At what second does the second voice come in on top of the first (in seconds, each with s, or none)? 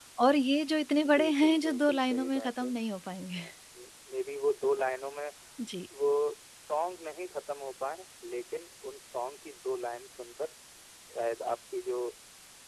1.1 s